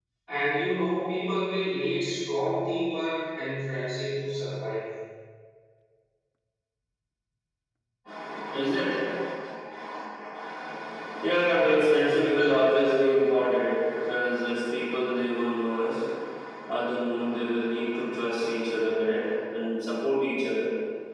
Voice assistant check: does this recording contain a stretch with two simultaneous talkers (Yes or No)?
Yes